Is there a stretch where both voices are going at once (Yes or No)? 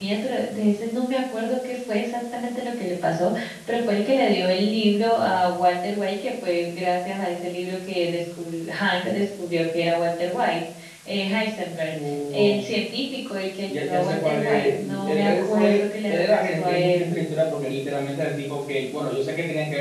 Yes